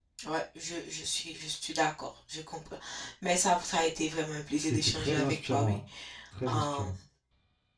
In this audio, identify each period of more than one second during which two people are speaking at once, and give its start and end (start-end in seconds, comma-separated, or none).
4.6-5.8